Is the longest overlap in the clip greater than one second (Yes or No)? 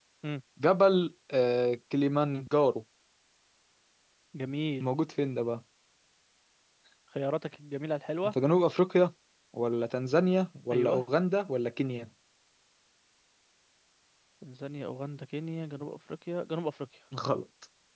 No